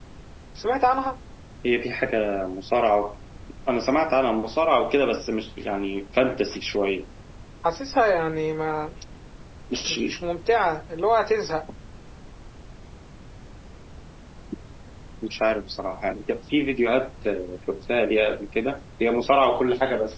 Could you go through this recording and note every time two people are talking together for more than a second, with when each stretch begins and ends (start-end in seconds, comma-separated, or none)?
none